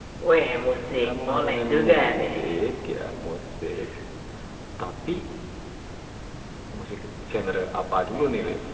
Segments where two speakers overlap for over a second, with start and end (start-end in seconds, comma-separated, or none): 1.0-2.4